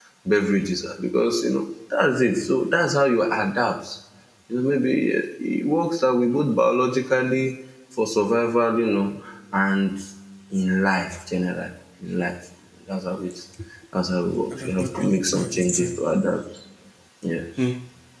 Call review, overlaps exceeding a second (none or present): present